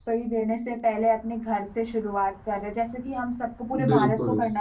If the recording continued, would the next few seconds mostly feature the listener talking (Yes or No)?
No